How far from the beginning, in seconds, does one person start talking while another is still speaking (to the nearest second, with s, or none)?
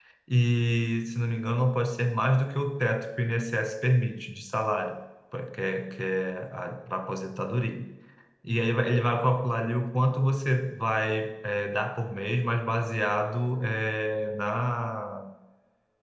none